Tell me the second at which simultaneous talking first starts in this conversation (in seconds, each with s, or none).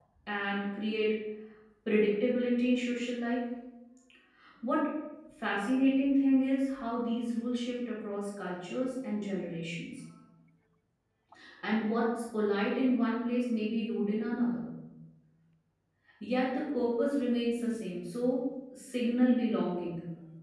none